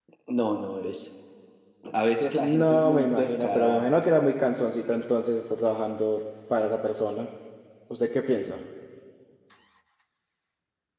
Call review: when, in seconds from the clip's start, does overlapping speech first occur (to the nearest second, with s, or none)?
2 s